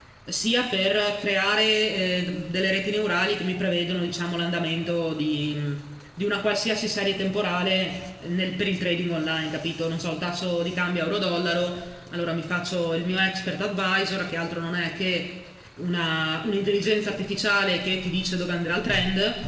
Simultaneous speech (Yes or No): No